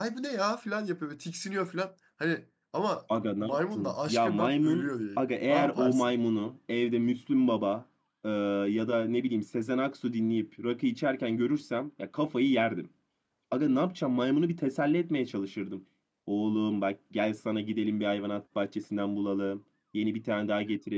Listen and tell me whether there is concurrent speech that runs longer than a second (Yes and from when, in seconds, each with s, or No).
Yes, from 3.1 s